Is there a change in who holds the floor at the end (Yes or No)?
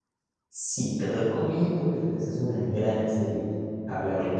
No